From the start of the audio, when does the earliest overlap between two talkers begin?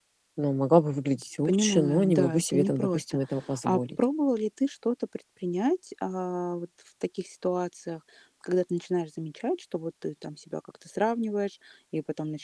1 s

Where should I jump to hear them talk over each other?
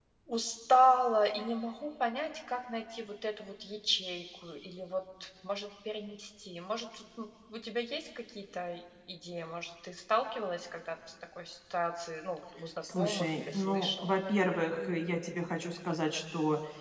13 s

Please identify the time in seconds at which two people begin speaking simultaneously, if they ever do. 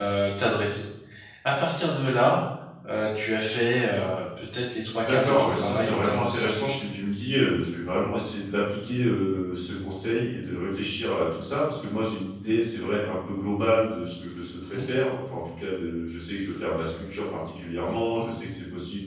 5 s

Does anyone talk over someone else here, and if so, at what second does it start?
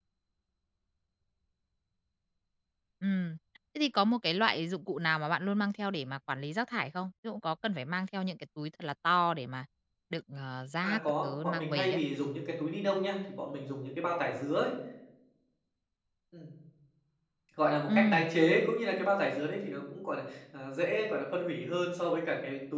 11 s

